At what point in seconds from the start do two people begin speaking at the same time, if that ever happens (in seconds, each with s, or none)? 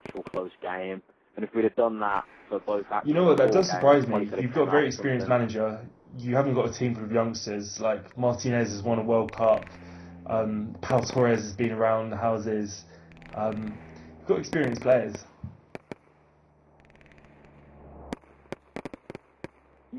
3.0 s